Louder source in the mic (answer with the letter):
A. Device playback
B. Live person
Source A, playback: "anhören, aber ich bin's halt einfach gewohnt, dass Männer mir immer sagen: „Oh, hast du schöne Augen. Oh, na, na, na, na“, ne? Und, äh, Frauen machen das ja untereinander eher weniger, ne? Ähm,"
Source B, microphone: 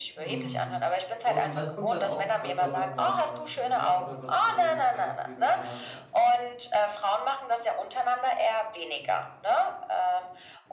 A